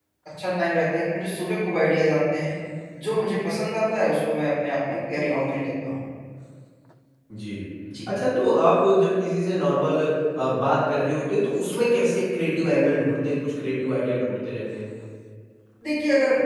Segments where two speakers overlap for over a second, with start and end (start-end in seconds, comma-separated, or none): none